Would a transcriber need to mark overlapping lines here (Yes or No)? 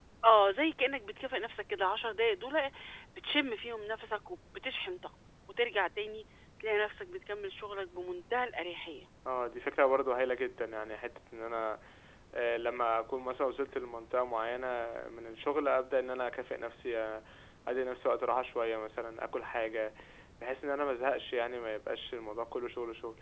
No